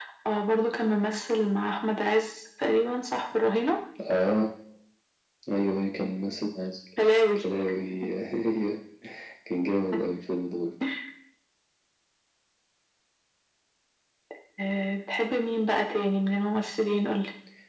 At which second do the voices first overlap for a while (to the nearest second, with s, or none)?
none